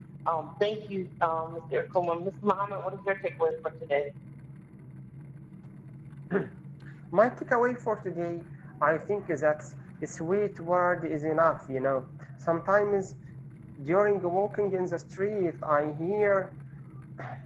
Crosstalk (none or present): none